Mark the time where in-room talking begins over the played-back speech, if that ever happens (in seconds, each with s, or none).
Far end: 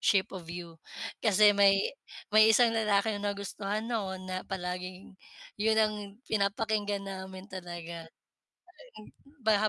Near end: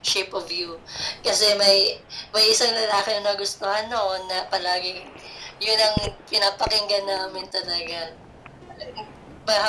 none